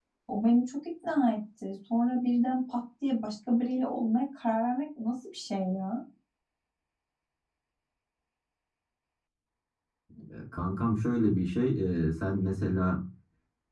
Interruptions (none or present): none